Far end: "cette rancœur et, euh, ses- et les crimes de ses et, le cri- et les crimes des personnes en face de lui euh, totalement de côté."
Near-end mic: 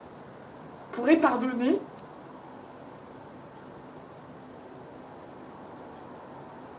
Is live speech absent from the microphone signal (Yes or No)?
No